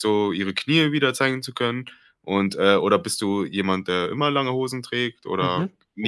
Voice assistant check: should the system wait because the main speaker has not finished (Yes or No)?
No